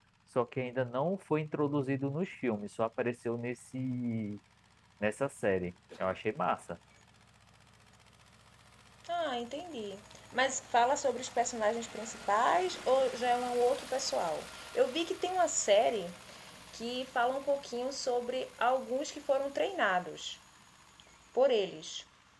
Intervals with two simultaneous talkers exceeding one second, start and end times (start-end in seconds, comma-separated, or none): none